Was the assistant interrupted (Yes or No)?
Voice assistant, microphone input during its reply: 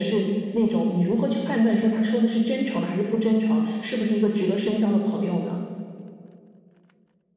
No